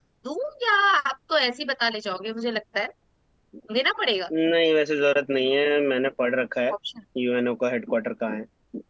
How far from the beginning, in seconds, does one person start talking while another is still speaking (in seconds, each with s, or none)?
none